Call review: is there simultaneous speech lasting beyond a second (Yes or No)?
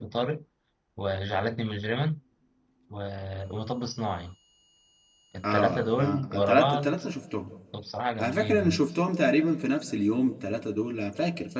Yes